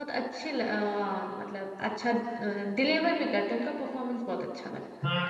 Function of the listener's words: taking over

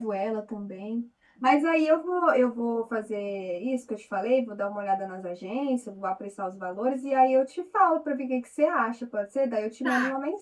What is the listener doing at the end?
taking over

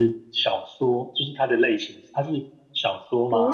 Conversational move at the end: taking over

